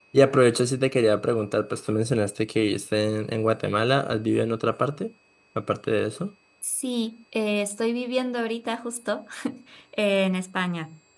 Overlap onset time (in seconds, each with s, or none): none